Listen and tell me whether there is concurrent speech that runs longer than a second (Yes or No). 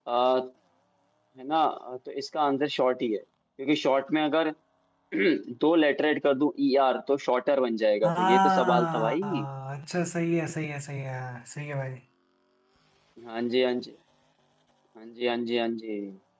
Yes